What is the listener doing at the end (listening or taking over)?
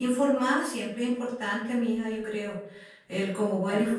listening